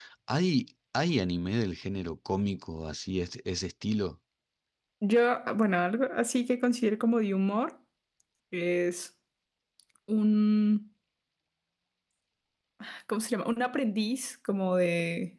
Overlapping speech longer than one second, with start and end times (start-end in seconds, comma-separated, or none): none